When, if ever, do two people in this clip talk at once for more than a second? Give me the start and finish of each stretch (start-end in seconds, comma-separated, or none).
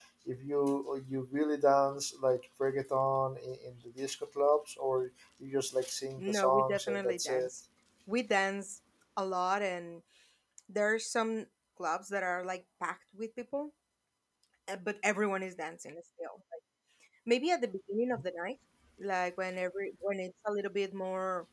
6.2-7.5